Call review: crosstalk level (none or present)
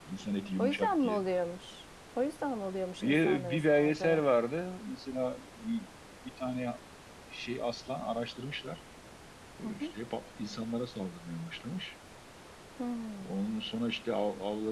present